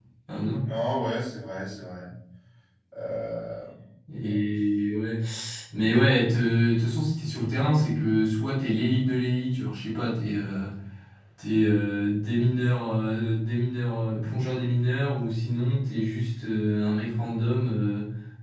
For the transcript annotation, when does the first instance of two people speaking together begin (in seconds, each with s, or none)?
none